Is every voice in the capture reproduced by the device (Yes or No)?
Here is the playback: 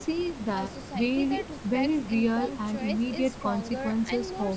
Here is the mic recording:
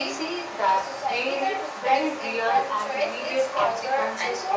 Yes